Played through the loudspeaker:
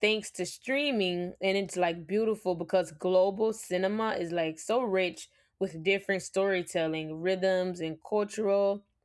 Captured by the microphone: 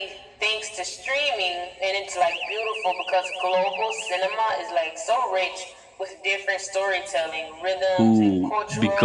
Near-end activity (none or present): present